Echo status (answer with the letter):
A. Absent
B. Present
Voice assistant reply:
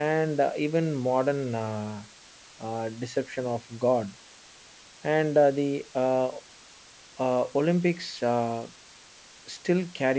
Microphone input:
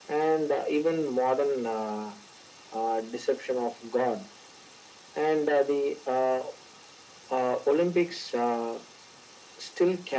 B